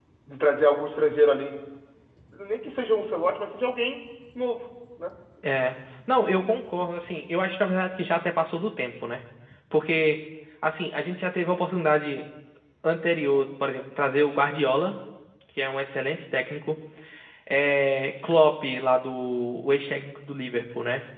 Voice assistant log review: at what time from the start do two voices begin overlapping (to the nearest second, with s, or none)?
none